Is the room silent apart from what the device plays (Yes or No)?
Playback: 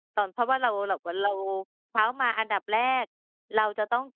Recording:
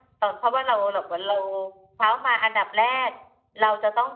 Yes